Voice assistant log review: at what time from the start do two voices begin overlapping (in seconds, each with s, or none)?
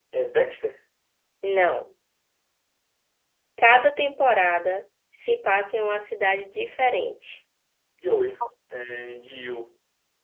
none